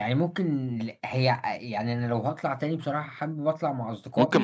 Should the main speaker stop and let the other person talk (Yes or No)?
Yes